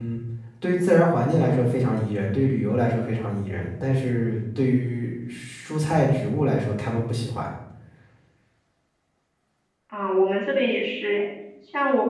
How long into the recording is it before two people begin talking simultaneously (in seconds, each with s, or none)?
none